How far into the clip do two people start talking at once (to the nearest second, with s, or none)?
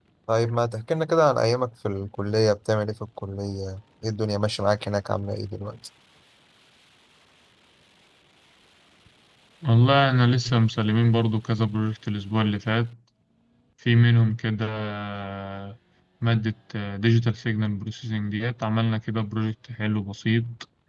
none